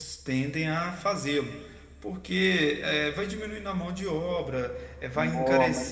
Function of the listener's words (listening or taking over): listening